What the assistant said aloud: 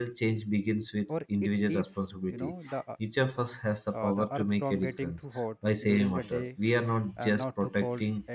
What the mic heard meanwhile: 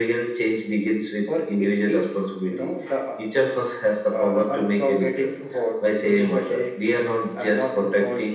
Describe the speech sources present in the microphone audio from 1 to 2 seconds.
echo only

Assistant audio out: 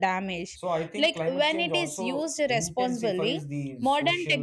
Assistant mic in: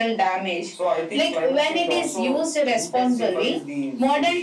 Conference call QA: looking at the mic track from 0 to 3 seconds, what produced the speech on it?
echo only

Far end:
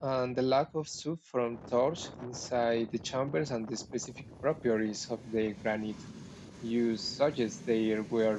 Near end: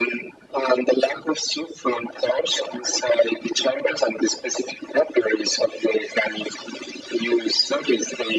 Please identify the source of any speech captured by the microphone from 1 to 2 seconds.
echo only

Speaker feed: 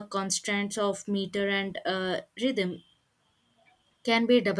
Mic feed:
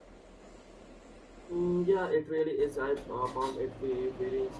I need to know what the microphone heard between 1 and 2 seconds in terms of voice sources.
user only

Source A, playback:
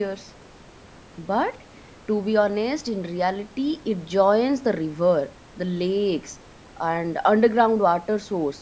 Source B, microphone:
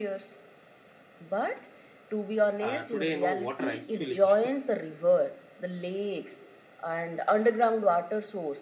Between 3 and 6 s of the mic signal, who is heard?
both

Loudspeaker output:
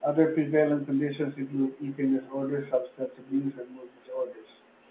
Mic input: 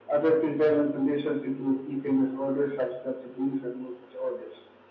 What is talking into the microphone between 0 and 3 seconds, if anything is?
echo only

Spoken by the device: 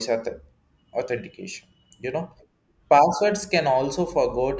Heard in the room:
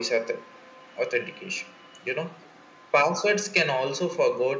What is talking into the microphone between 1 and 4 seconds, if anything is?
echo only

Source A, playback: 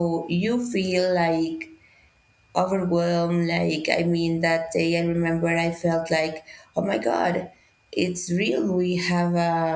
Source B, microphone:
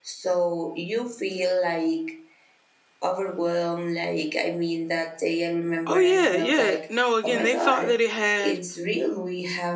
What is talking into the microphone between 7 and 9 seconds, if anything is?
both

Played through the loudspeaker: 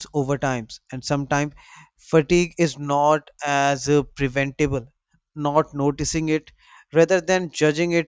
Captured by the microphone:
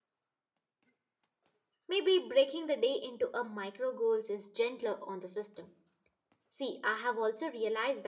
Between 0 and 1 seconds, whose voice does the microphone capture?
neither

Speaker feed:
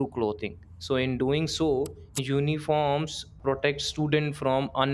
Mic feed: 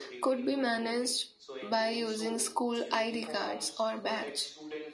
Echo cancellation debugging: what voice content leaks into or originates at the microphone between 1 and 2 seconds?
both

